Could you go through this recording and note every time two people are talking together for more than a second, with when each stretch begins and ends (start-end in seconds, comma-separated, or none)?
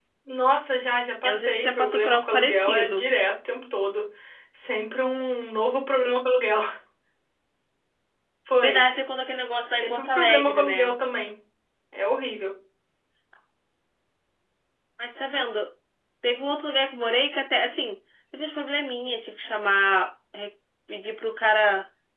1.2-3.0, 9.7-11.0